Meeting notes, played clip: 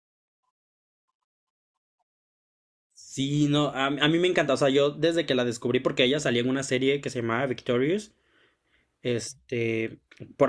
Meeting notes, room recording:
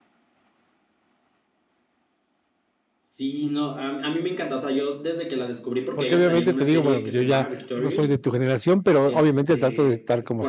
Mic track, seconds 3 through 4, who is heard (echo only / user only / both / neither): echo only